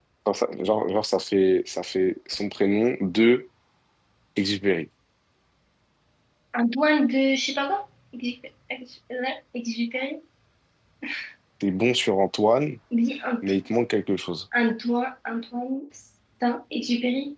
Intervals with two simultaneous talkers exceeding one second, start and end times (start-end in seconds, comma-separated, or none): none